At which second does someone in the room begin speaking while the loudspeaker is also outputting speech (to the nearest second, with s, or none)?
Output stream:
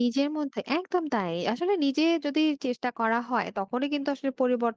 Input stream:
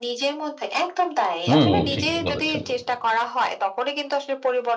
1 s